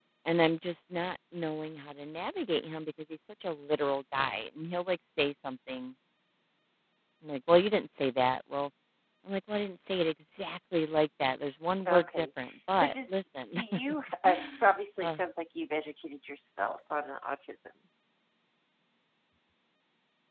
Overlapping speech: Yes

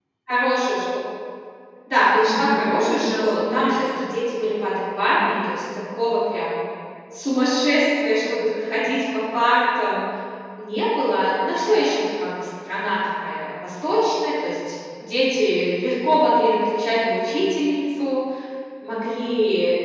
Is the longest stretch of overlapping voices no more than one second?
No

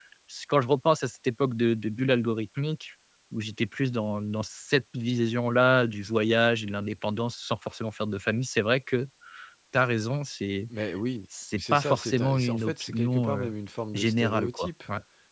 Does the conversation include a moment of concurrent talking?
Yes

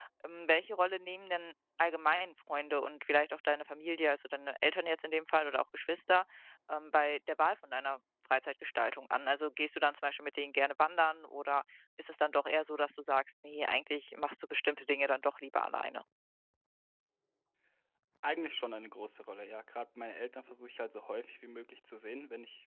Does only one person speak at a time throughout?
Yes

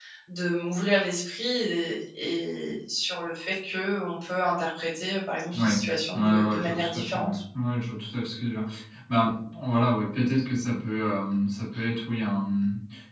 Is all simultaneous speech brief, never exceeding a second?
No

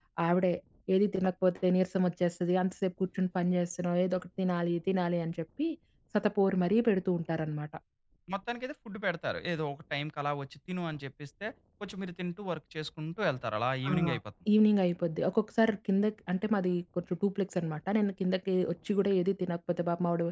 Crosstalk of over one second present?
No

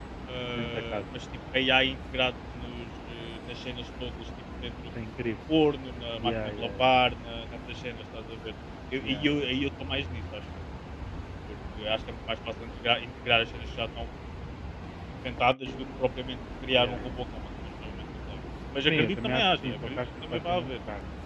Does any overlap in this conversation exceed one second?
Yes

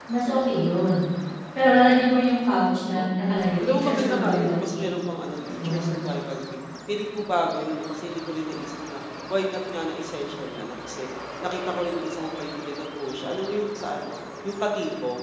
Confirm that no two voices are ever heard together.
No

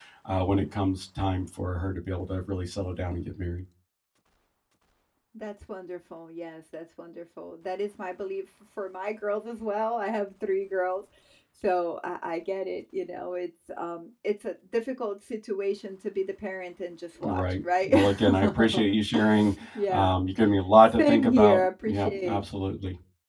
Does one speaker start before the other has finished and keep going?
Yes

